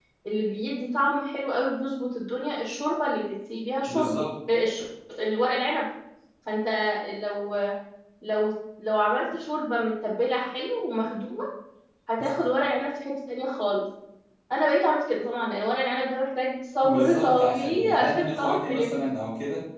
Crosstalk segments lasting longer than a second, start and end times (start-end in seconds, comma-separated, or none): 16.8-18.9